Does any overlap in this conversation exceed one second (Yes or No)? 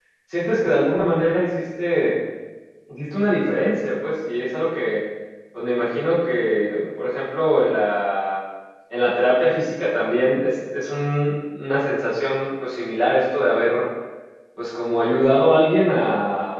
No